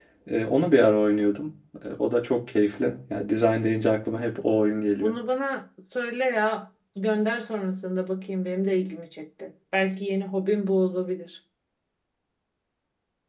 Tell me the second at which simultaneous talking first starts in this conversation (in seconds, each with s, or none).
none